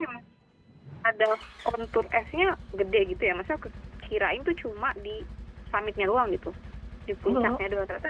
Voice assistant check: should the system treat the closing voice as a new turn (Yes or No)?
No